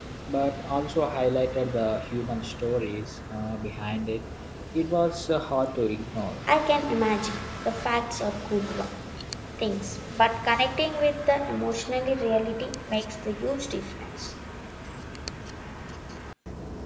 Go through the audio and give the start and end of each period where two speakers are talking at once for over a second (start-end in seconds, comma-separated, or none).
none